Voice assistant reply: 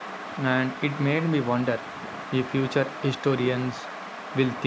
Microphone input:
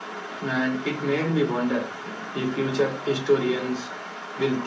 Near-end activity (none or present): none